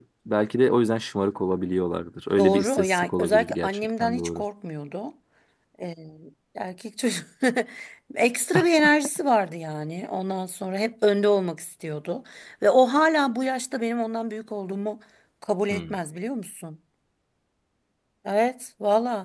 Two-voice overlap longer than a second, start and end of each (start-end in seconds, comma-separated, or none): 2.4-4.4